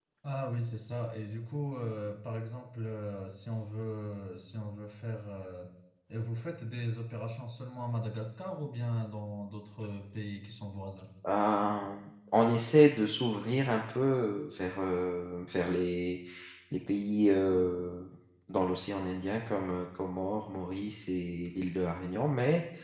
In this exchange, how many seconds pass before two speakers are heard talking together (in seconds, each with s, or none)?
none